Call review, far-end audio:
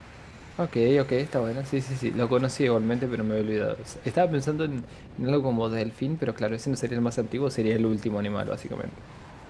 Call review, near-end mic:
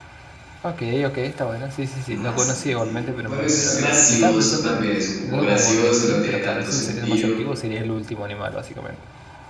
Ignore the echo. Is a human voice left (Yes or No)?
Yes